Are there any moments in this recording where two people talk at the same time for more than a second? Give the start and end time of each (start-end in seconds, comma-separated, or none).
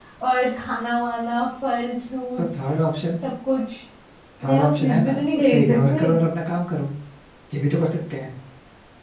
4.5-6.0